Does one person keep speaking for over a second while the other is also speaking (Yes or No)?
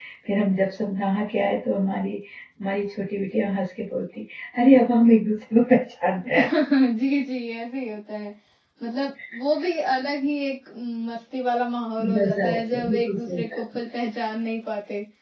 Yes